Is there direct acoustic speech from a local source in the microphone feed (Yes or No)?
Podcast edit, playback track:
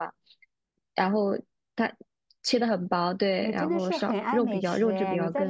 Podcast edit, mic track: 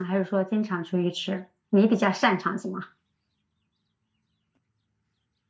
Yes